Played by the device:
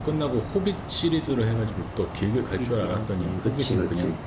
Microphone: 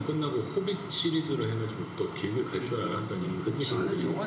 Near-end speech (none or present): present